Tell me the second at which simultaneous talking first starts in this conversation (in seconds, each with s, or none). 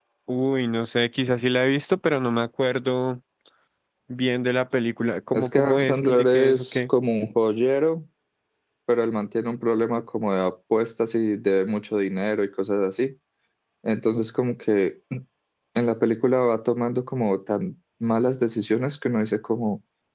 5.3 s